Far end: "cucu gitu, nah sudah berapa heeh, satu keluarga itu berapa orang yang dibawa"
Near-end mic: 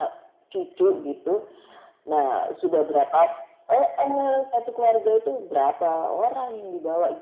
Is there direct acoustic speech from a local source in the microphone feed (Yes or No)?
No